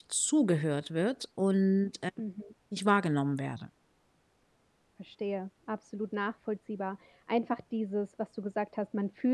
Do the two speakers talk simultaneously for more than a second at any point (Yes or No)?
No